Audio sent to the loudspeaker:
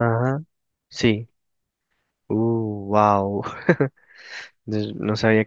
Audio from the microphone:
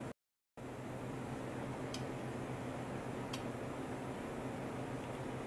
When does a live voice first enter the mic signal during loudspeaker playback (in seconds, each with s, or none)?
none